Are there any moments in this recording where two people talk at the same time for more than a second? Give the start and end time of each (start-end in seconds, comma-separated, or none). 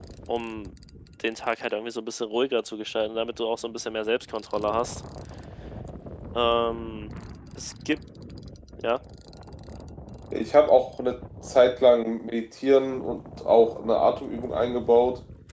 none